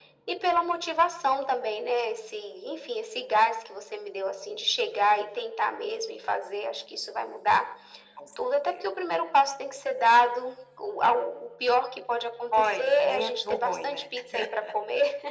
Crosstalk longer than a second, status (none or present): present